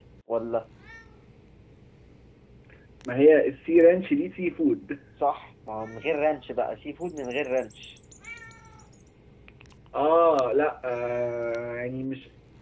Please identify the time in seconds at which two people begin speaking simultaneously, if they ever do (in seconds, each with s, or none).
none